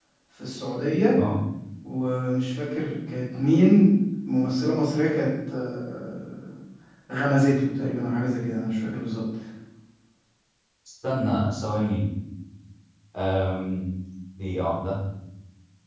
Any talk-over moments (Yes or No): No